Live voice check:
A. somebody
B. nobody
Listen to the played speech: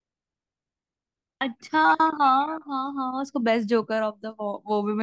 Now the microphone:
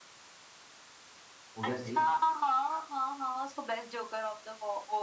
A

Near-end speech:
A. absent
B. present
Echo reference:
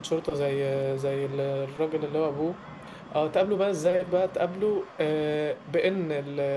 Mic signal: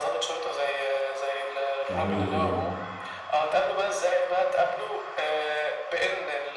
B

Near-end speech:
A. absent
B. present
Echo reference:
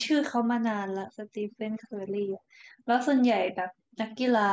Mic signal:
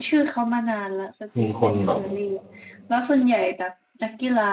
B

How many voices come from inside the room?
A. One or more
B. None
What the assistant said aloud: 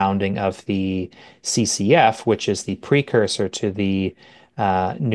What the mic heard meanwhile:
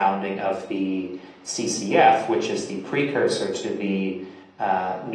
B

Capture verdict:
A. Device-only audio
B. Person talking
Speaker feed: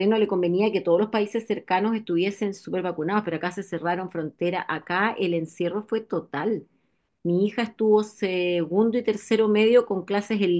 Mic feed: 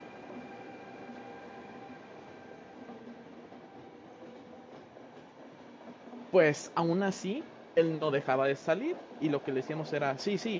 B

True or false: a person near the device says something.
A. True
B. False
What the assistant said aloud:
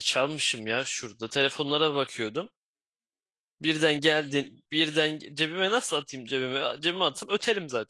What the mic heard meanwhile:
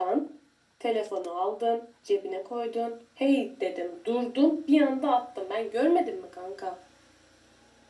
A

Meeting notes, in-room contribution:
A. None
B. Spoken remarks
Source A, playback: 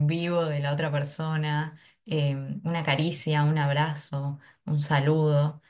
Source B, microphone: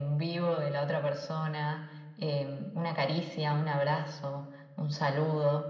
A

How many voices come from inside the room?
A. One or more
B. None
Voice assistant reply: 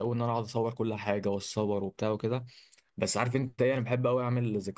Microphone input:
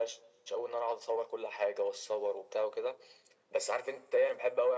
B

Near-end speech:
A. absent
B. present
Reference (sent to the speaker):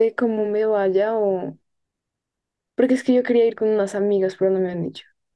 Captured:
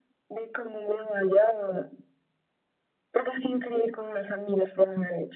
A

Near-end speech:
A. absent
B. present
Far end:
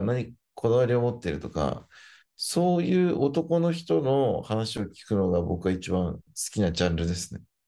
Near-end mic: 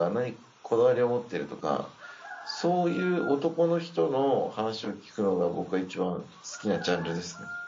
A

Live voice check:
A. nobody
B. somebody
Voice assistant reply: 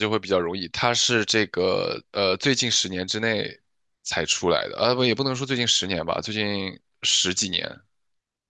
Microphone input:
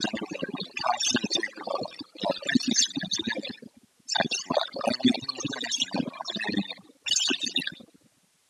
A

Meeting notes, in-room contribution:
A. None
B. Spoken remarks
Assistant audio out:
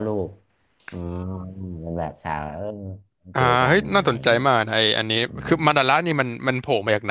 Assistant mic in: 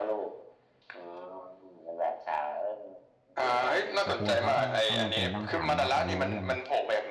B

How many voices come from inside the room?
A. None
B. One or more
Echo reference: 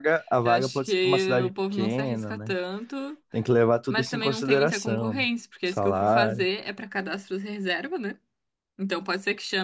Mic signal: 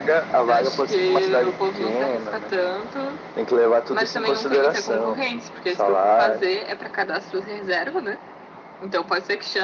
A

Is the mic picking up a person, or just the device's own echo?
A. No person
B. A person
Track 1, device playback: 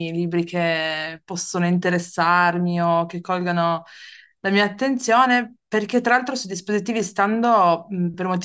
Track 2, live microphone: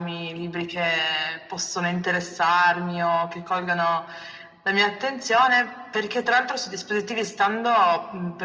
A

